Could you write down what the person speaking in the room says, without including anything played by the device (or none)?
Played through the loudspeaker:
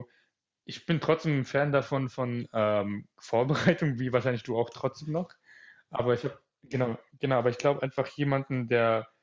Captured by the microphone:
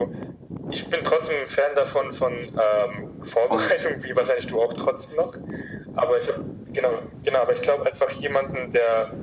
Und,